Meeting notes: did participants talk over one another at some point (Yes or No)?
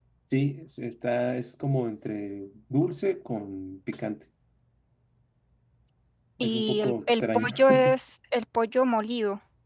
Yes